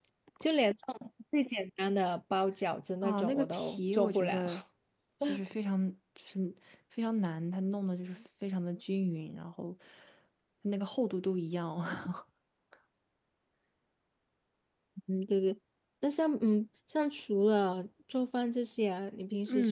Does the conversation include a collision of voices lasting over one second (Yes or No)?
Yes